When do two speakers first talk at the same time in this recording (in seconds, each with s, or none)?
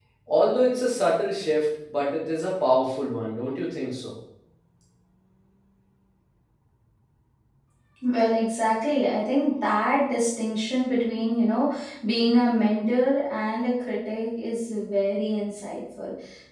none